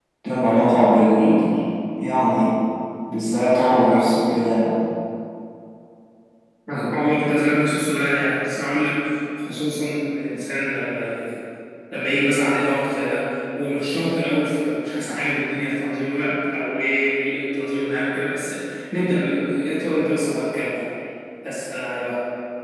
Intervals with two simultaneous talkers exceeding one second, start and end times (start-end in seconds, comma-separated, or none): none